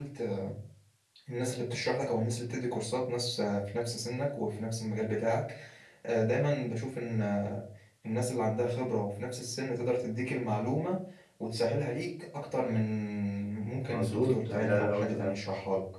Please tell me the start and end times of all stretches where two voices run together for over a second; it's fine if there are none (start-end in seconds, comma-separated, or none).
13.9-15.3